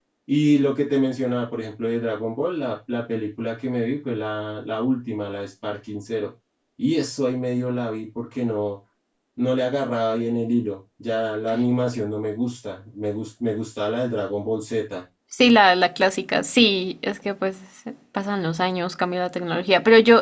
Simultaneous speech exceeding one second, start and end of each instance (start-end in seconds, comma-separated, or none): none